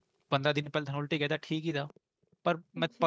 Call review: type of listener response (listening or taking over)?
listening